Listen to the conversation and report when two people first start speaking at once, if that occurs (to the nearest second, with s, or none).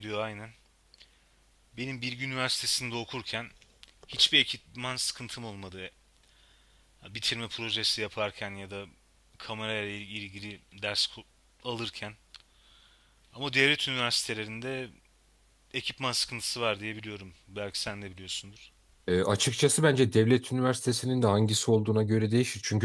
none